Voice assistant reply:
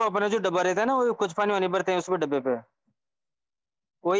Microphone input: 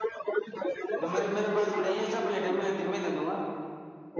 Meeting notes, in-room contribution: present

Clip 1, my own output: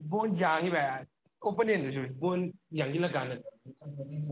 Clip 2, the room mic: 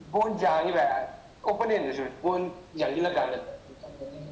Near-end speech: none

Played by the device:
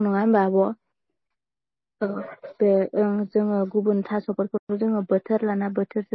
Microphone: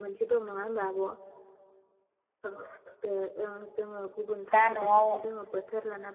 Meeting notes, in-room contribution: present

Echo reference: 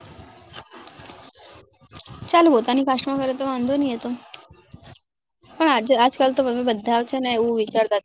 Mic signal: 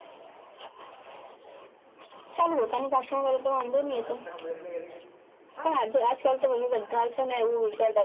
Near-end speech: present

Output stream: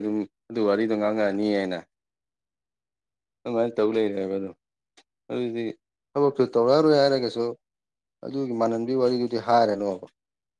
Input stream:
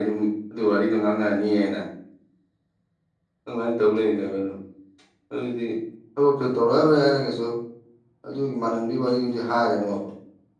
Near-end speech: none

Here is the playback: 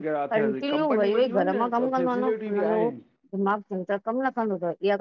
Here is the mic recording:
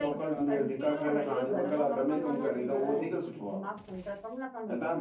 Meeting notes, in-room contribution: present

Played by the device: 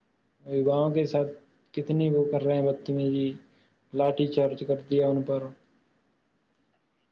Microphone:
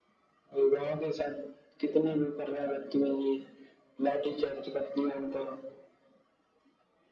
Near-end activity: none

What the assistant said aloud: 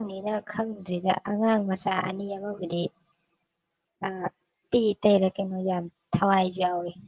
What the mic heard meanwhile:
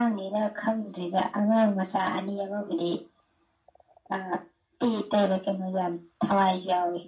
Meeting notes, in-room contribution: none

